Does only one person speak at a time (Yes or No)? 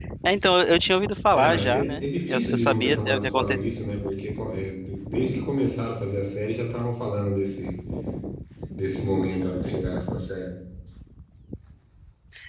No